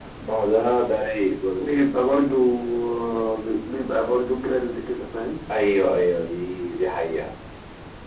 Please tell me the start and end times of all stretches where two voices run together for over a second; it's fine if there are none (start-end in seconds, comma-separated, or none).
none